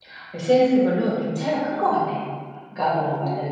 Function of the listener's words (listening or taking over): listening